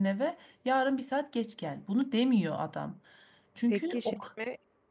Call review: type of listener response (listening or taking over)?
taking over